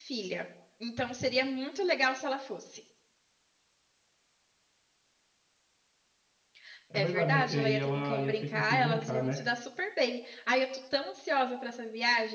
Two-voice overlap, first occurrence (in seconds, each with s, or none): 6.9 s